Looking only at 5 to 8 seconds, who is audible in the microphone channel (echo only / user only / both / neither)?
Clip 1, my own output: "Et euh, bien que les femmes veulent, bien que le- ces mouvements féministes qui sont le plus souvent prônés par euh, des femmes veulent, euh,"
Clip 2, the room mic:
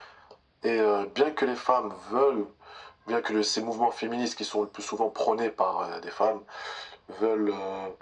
echo only